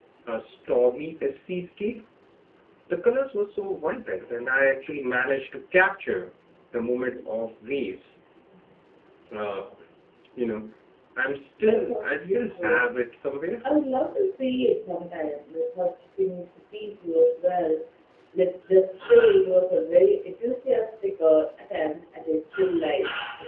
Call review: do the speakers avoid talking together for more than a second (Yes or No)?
No